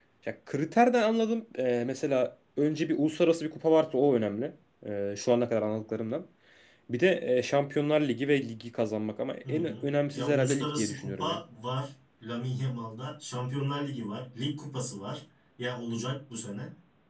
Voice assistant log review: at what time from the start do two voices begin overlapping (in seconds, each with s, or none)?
9.4 s